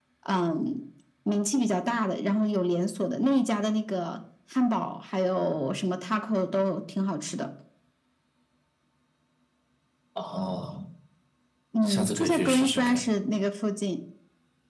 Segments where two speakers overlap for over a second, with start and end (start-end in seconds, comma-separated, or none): 11.8-13.0